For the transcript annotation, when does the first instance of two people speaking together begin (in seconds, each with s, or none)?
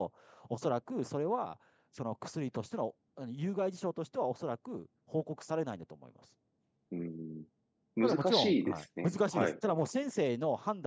8.0 s